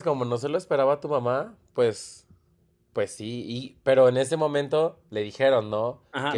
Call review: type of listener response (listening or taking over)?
taking over